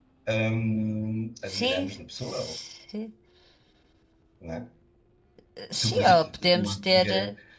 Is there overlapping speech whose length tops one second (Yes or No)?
Yes